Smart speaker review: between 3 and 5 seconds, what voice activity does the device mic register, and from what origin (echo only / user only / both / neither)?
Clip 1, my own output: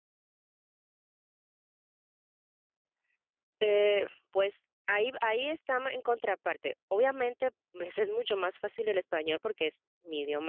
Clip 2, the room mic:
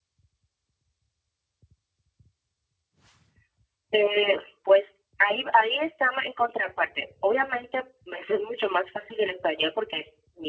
echo only